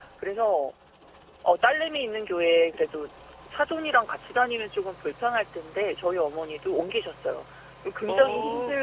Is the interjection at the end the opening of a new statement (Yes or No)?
No